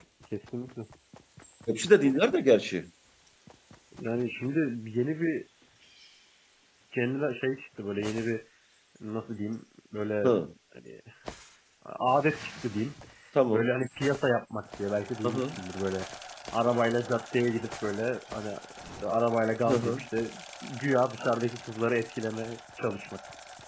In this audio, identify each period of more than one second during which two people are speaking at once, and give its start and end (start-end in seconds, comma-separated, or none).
none